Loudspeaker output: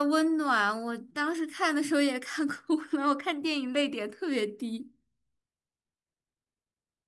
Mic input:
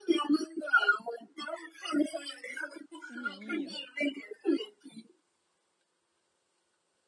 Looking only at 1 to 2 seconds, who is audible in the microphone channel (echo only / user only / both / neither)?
echo only